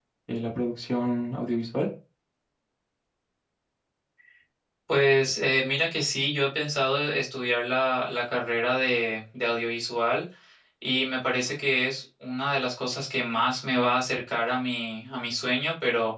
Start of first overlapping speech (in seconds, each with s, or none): none